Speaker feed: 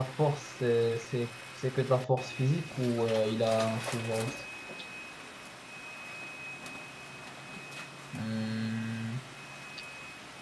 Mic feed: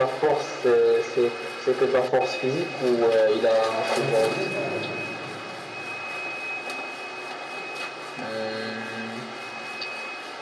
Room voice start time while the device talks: 3.9 s

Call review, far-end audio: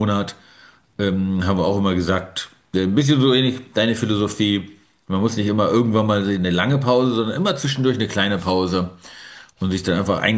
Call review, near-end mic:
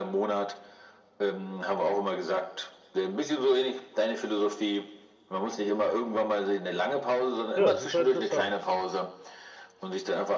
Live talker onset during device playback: 7.5 s

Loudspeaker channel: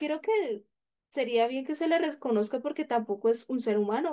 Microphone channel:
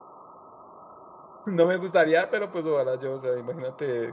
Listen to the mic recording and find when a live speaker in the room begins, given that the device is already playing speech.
1.4 s

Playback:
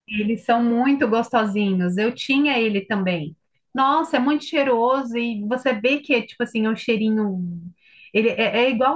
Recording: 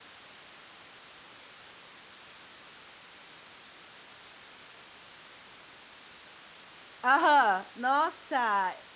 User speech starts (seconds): 7.0 s

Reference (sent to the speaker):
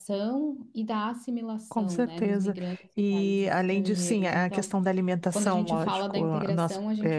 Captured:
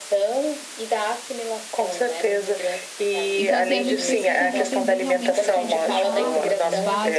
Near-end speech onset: 3.4 s

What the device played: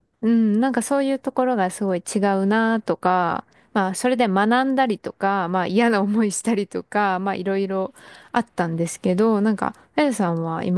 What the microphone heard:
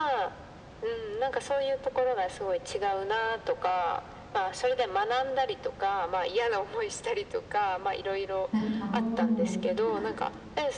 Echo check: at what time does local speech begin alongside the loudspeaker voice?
8.5 s

